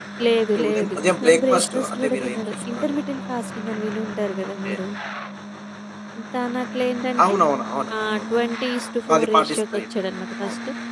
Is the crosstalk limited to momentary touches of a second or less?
No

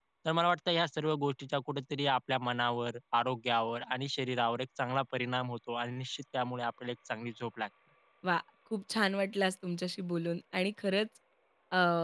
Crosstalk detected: No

